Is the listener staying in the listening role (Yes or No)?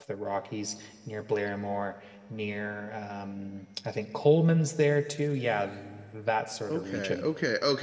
No